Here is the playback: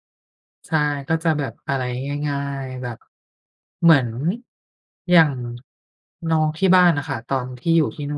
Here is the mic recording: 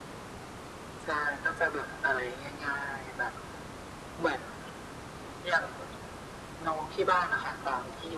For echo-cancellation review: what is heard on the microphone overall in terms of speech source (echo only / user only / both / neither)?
echo only